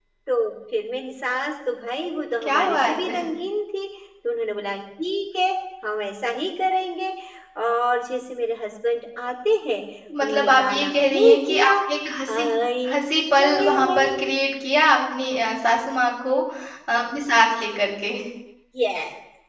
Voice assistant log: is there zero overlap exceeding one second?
No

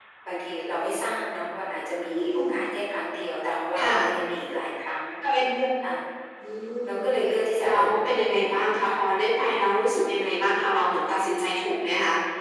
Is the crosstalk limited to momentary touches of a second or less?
No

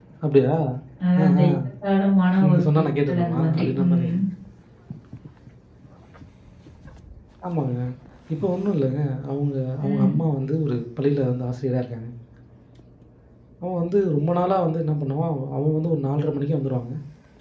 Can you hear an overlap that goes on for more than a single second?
Yes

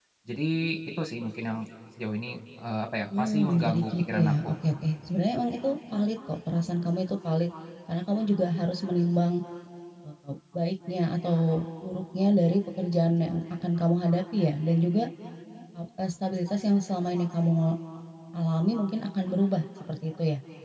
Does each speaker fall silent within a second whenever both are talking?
No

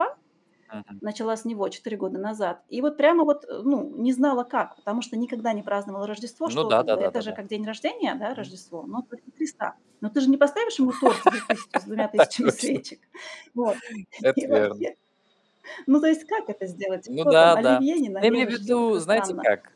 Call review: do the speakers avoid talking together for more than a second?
No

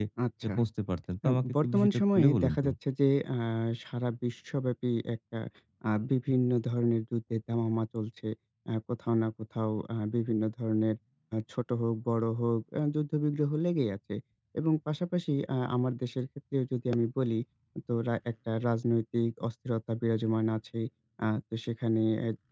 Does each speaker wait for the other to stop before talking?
No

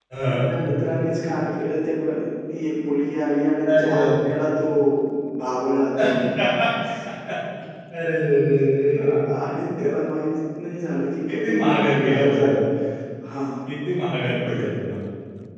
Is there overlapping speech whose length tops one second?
Yes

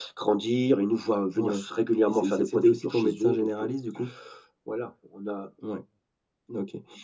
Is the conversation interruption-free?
No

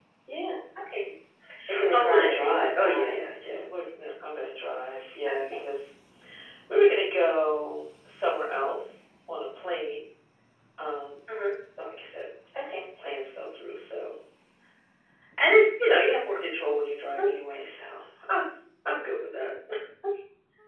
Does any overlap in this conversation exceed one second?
Yes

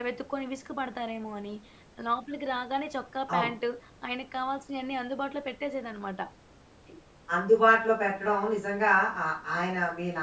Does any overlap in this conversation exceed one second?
No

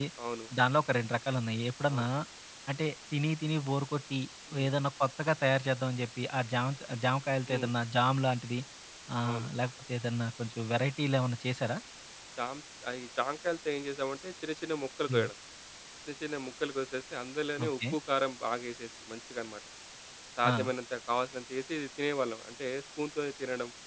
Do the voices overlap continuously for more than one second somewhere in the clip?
No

